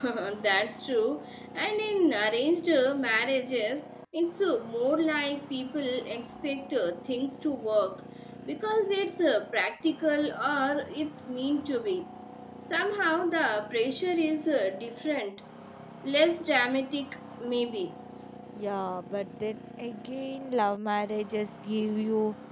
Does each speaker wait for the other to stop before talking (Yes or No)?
Yes